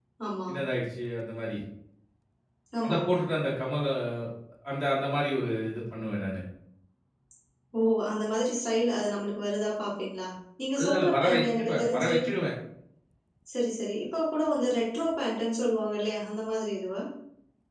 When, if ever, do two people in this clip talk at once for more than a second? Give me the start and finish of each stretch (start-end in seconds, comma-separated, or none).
10.8-12.1